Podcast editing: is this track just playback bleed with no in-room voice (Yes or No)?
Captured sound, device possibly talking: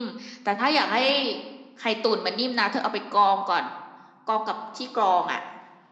Yes